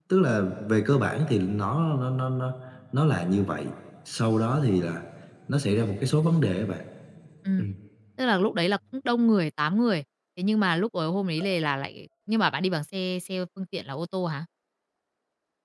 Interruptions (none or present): none